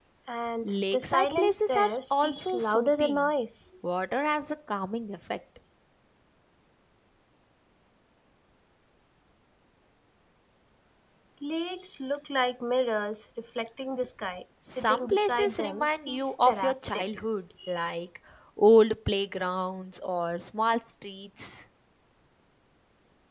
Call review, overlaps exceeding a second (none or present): present